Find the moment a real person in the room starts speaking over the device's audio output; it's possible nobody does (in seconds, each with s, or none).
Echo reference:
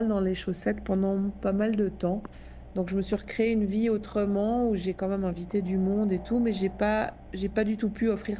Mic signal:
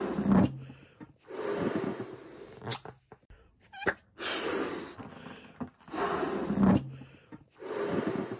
none